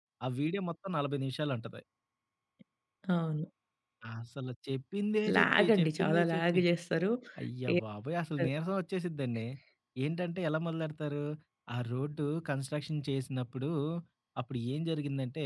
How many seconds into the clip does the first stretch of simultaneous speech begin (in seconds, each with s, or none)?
5.4 s